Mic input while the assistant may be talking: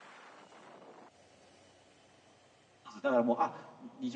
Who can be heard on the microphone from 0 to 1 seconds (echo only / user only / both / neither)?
neither